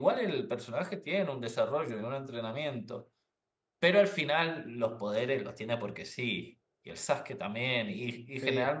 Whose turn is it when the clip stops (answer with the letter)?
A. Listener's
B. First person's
B